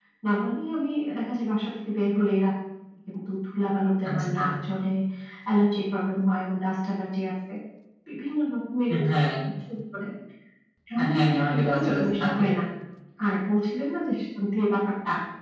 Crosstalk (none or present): present